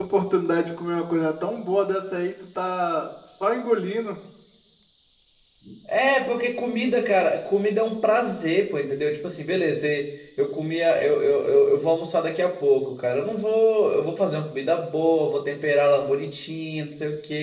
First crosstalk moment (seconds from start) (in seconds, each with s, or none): none